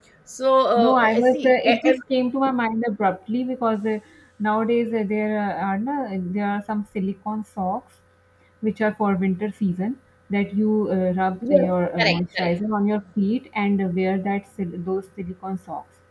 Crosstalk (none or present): present